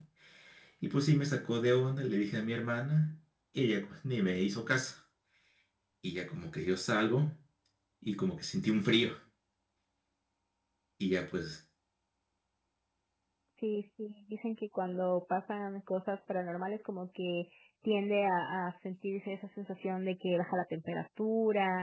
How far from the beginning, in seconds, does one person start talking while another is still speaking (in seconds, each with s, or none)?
none